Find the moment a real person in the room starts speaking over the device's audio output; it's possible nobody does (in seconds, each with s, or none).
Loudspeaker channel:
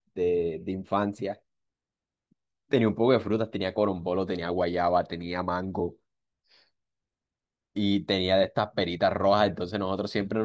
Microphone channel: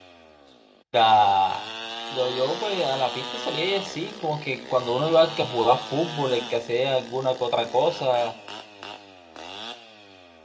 0.9 s